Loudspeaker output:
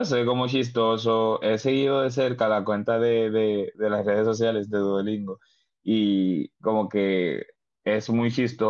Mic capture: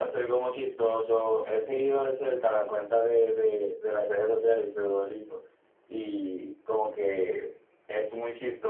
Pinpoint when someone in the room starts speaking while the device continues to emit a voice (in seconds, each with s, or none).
none